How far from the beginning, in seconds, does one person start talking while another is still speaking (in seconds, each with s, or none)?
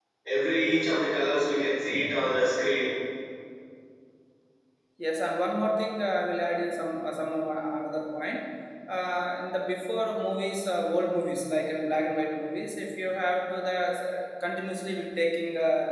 none